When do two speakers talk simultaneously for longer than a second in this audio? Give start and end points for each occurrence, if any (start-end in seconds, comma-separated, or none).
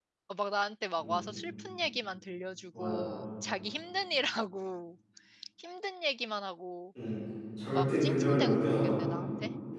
7.7-9.1